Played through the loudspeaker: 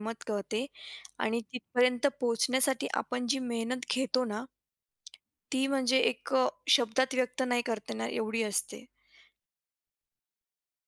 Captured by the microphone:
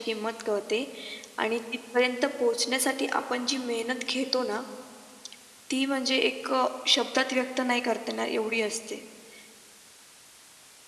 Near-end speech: none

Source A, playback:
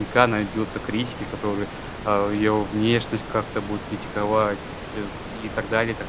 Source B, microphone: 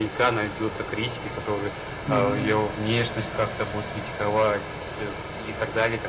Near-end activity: present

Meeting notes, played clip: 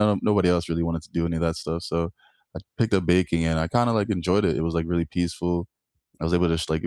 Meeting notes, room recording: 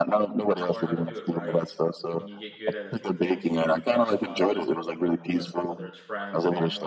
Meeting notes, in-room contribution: present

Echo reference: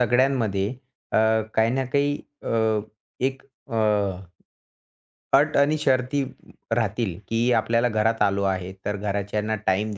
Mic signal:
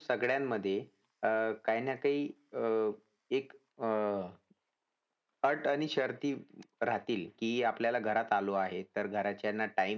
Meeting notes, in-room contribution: none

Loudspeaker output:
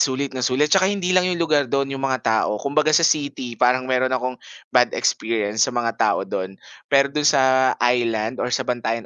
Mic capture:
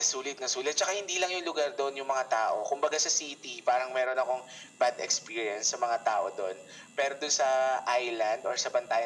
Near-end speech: none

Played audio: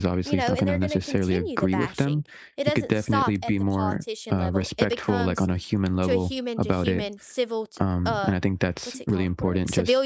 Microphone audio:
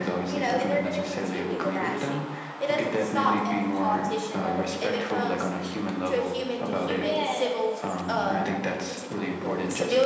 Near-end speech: present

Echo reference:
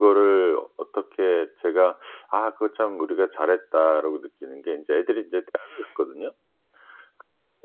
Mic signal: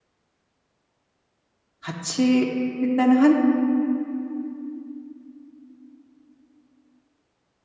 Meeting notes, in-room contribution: present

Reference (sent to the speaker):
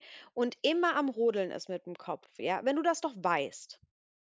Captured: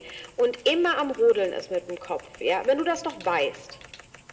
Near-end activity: none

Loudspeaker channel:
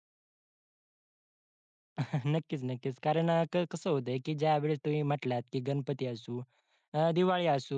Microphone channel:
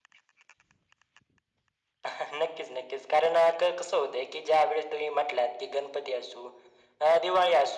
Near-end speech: none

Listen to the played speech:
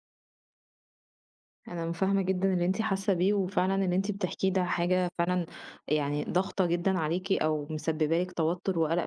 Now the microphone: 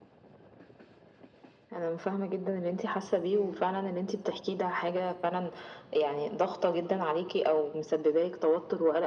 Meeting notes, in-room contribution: present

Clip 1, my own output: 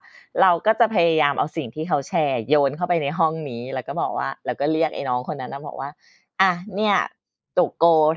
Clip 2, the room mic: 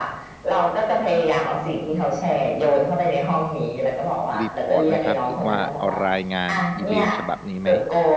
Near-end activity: present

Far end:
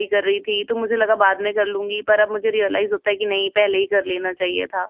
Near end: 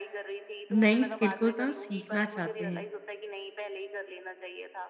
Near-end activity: present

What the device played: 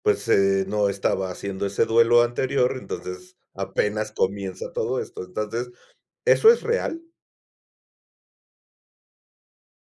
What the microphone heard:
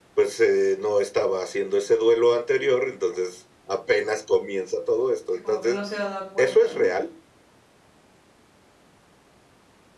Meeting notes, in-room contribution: present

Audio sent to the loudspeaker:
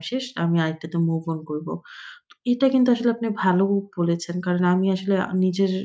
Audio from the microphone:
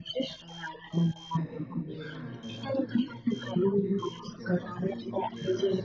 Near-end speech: present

